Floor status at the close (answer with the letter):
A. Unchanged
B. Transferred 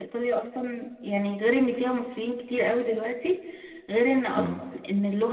A